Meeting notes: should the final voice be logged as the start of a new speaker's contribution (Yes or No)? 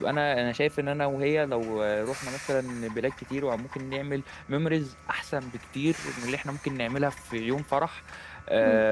No